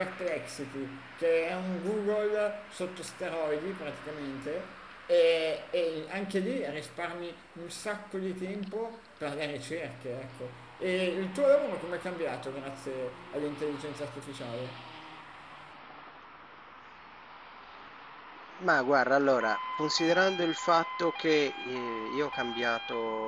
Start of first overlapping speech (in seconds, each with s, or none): none